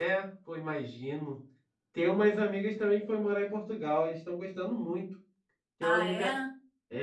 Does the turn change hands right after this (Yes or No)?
No